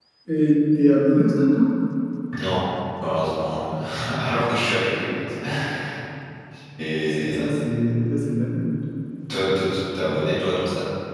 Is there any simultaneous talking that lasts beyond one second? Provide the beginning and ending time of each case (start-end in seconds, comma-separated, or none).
none